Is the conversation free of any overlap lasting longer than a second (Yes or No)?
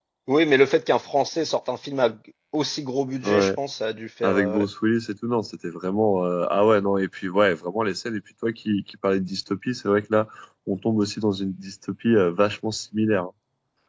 Yes